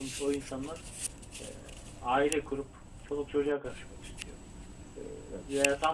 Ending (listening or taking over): listening